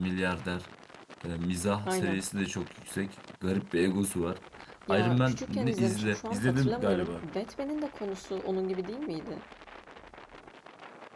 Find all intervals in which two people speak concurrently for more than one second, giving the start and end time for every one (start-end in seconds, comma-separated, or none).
4.9-7.2